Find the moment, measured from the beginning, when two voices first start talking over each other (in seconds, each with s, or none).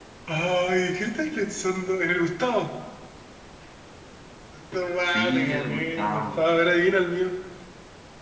5.1 s